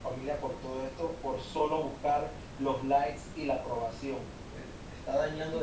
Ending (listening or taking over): listening